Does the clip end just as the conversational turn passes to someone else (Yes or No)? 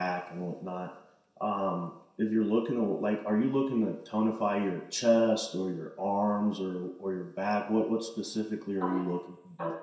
Yes